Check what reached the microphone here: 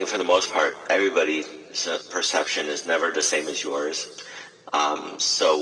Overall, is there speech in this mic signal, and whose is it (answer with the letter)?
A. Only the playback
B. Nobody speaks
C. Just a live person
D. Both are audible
A